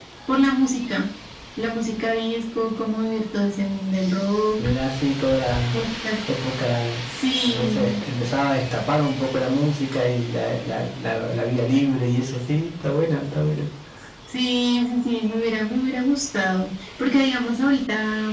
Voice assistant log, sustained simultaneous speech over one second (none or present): none